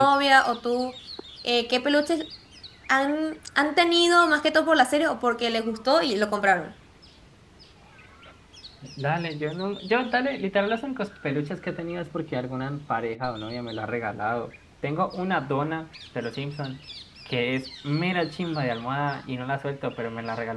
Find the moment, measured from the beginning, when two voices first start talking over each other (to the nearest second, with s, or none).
none